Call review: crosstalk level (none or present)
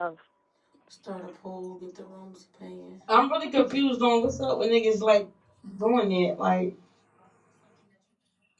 none